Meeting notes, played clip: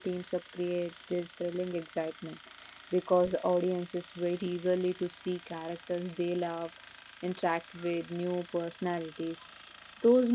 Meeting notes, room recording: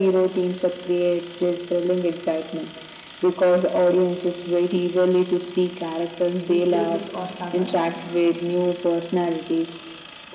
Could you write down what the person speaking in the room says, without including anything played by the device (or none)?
in phases or sagas,